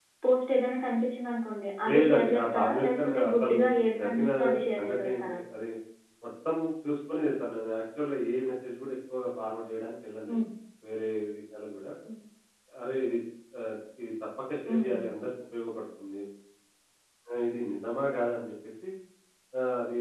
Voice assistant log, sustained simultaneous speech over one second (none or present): present